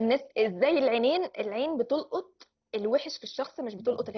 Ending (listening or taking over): listening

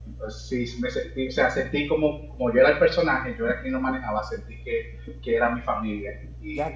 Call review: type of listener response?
taking over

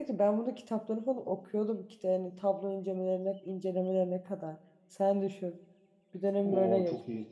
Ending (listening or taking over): taking over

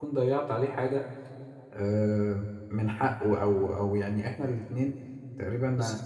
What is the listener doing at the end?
listening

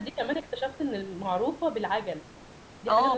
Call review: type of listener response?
taking over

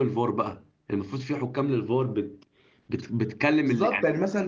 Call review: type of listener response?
taking over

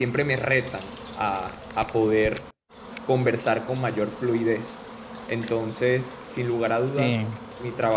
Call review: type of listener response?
listening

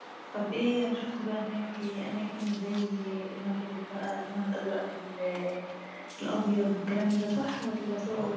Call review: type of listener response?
taking over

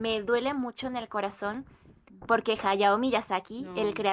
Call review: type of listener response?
listening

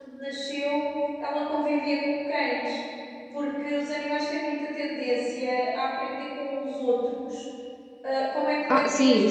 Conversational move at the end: taking over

